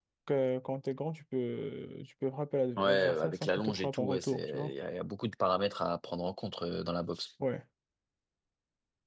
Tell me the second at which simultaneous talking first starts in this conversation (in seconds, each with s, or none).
2.8 s